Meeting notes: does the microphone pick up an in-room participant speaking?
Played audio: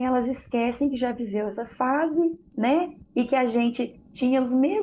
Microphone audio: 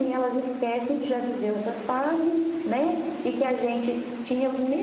No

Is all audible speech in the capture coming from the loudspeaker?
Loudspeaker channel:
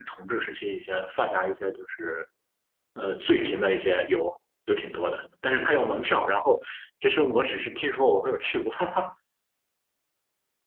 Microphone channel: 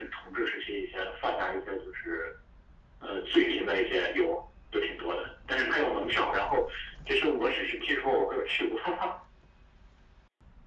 Yes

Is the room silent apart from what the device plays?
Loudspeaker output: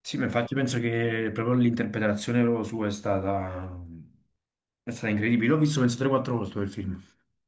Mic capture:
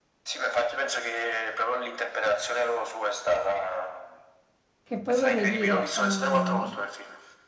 No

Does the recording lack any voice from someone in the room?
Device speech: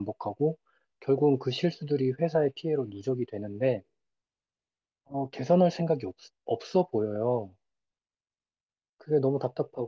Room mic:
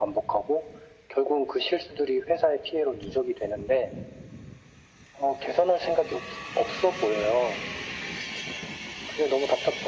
Yes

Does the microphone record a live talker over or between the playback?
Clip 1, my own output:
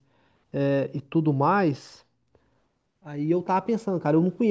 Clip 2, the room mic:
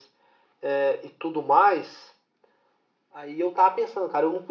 No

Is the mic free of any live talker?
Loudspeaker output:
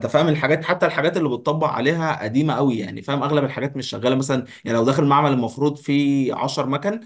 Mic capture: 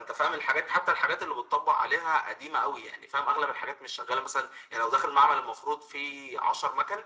Yes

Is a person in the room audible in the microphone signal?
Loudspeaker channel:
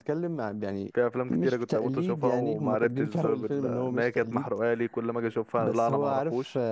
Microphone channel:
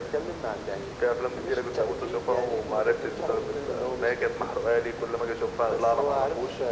No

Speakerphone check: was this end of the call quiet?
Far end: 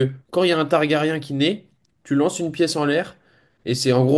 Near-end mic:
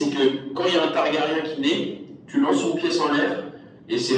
Yes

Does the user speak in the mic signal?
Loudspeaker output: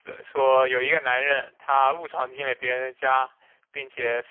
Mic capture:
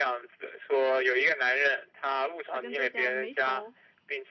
Yes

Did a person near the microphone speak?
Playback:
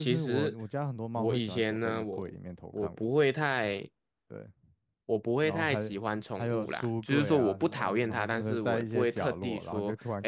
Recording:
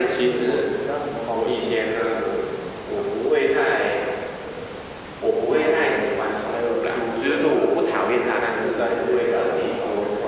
No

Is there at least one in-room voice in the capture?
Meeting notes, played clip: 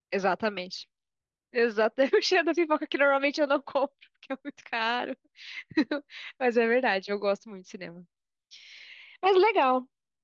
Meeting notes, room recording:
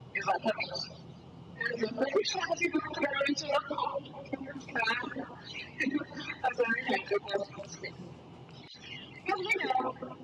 No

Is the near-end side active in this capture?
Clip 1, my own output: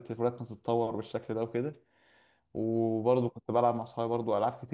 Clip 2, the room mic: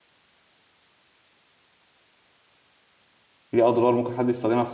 Yes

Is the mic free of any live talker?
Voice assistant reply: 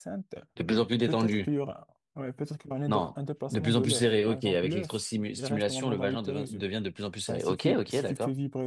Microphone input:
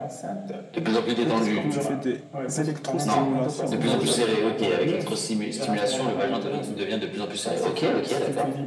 No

